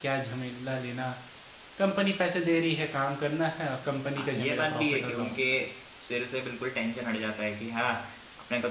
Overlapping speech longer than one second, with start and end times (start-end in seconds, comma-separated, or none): 4.2-5.4